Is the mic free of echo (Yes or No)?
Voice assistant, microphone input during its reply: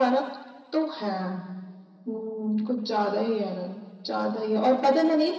No